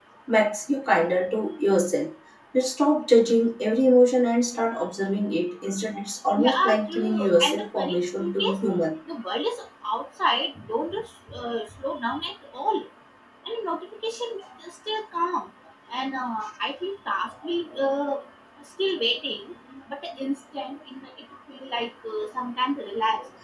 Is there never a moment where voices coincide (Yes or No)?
No